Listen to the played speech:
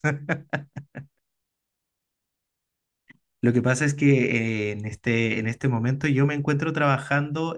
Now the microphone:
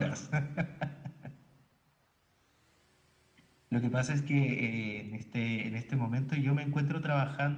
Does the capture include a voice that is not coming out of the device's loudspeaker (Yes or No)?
No